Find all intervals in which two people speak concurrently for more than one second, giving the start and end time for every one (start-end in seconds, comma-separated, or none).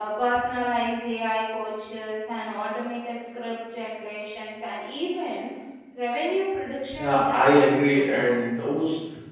7.0-8.3